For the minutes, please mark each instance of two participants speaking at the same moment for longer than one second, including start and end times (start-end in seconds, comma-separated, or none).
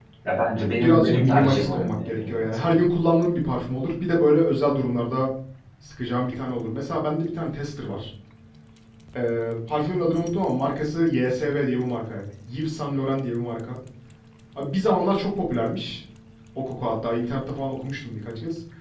0.8-2.7